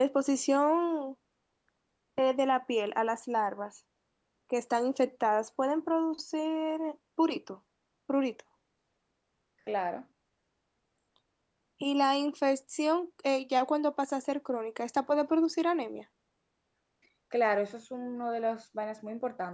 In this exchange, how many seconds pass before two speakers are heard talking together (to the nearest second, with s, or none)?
none